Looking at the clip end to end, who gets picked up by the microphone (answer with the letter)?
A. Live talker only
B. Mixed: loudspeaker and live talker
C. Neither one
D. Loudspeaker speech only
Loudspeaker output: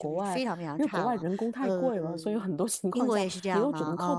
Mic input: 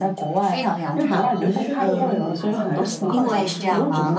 B